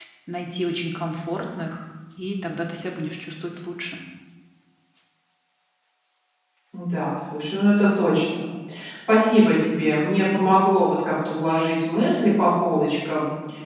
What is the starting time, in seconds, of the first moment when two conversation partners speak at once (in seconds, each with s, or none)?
none